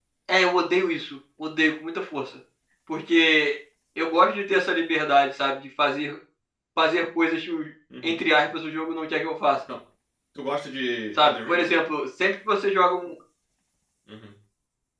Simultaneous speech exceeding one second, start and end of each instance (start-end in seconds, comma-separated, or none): none